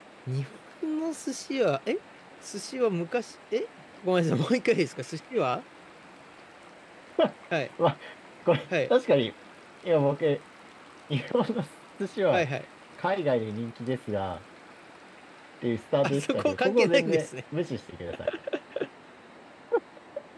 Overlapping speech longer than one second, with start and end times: 16.0-17.3

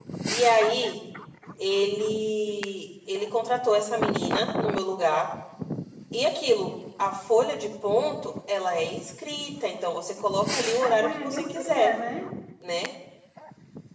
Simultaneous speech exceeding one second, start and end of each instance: 10.5-11.9

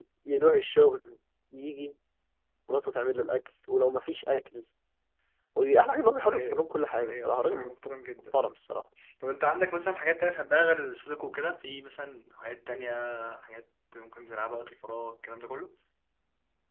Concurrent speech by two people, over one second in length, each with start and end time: 6.1-7.7

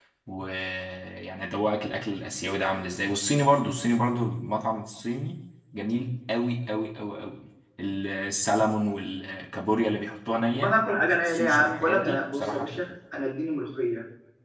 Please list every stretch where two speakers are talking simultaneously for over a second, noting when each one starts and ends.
10.5-12.8

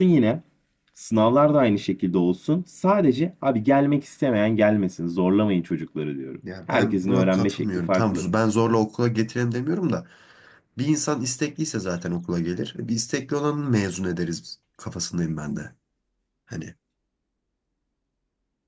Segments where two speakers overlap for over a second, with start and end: 6.7-8.2

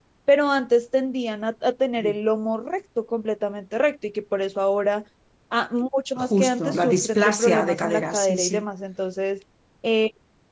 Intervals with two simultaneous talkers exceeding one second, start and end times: 6.2-8.6

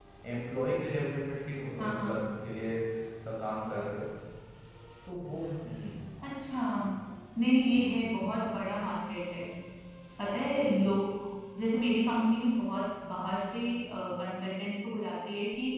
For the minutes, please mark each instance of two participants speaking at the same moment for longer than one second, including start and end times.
none

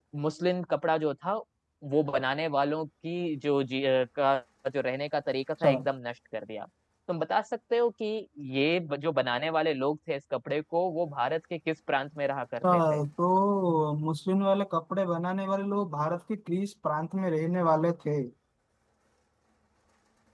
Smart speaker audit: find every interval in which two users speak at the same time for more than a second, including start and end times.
none

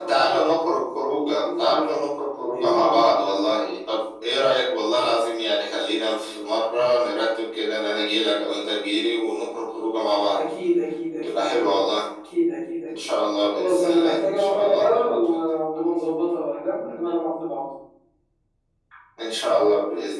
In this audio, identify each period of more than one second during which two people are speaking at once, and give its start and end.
13.5-15.4

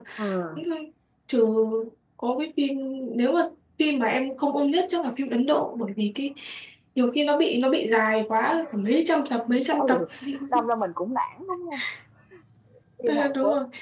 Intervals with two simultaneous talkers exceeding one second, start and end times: none

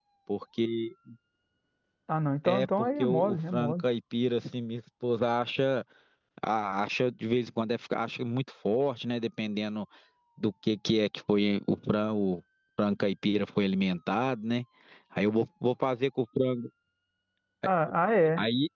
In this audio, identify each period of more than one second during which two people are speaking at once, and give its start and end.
2.5-3.8

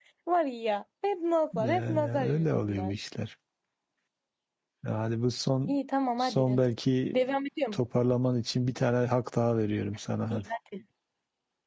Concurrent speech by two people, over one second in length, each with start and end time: 1.5-2.9

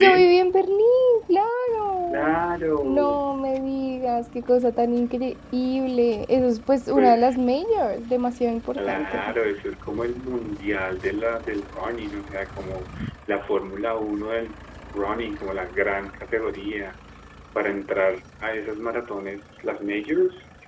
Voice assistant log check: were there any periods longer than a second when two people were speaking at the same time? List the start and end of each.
none

